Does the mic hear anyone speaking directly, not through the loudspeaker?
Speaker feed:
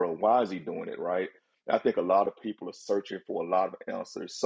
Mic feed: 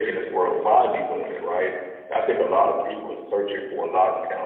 No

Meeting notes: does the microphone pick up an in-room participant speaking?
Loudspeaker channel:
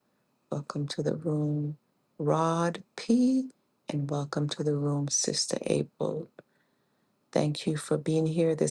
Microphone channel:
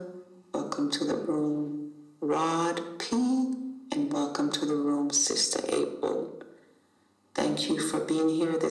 No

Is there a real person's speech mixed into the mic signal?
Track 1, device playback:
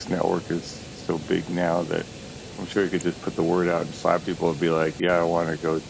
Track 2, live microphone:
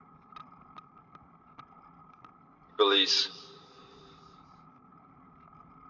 Yes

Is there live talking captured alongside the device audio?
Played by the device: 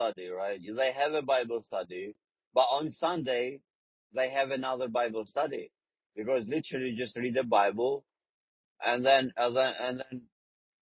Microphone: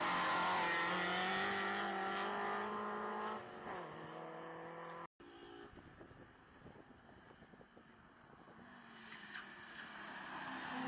No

